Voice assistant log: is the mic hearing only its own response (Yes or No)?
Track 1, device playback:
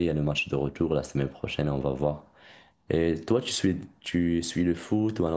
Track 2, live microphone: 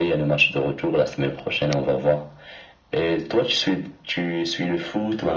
Yes